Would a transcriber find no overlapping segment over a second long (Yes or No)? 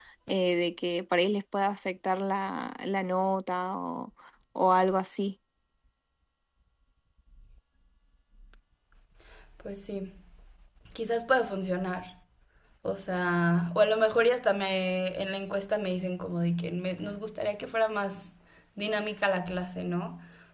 Yes